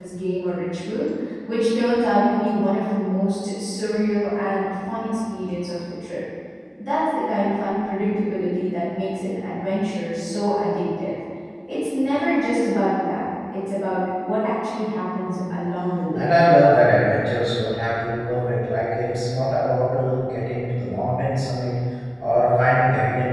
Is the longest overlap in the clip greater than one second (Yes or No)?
No